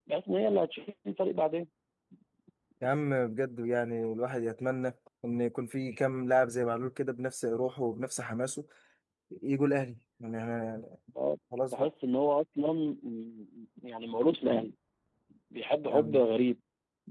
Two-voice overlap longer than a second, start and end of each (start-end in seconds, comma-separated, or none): none